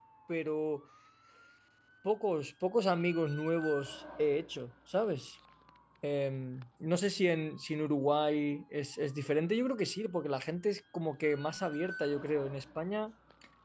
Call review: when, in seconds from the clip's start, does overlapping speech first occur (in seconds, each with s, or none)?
none